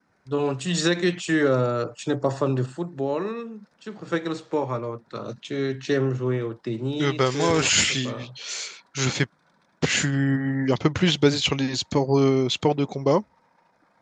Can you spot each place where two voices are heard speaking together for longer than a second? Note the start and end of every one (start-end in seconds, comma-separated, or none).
7.0-8.3